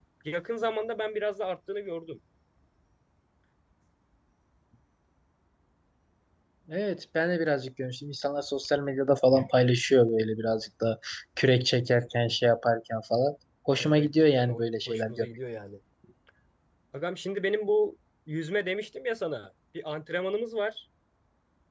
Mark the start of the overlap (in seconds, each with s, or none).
13.7 s